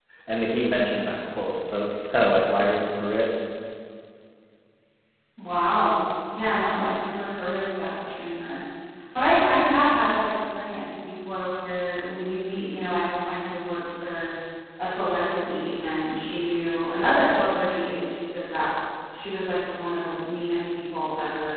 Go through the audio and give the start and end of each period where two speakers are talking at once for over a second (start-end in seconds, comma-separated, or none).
none